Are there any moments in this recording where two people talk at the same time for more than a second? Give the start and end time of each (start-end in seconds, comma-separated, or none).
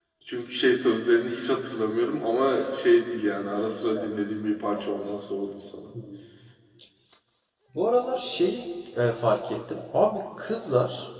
none